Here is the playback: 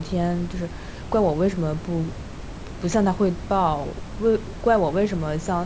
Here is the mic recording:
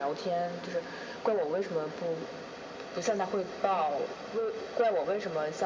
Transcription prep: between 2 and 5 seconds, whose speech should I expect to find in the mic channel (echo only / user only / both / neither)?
echo only